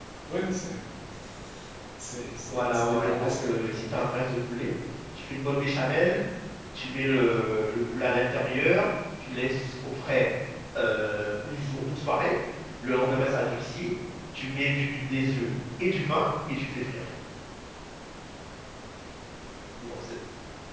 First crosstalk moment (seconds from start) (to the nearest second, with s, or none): 2 s